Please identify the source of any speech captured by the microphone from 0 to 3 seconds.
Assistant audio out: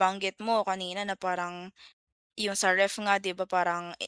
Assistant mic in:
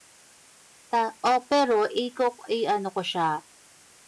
user only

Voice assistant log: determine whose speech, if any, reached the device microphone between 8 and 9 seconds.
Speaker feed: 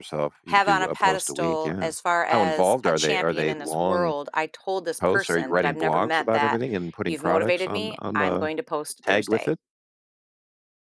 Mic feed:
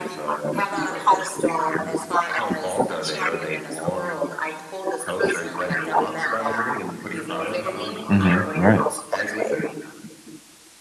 both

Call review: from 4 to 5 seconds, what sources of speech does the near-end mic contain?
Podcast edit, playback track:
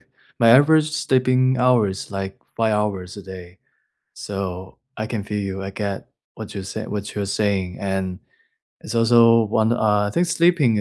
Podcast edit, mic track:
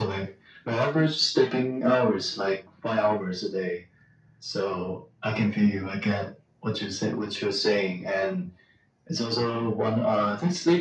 echo only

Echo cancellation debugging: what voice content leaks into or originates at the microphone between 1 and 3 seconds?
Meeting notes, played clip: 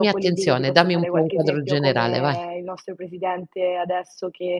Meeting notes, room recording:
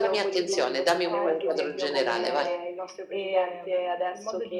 both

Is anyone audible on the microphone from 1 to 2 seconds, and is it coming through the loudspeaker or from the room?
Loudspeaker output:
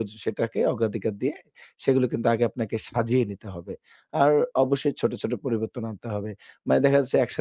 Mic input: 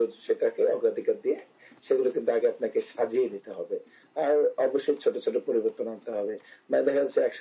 echo only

